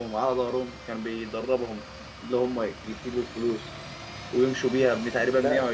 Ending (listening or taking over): listening